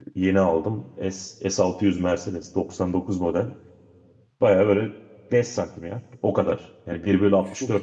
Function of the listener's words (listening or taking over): listening